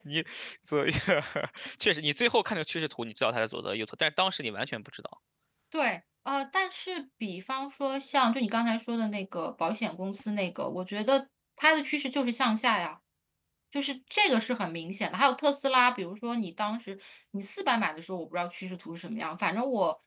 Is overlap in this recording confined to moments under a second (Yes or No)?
Yes